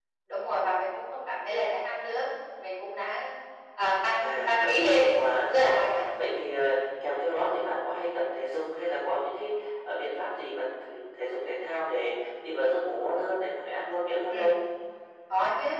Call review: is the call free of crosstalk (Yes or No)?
No